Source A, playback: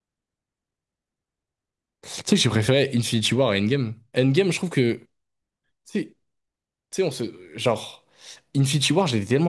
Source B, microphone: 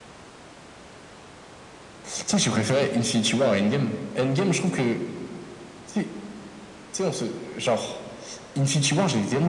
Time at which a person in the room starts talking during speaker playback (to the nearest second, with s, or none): none